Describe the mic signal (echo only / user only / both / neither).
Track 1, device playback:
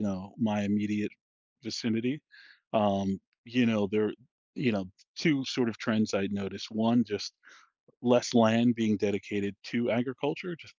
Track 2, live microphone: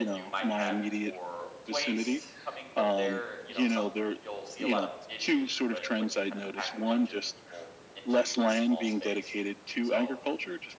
both